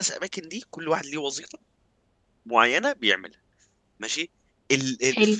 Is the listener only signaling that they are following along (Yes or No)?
Yes